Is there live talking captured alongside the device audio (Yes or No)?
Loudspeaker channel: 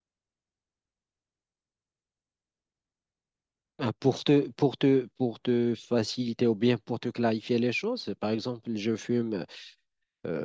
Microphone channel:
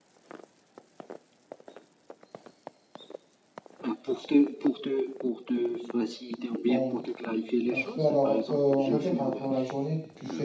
Yes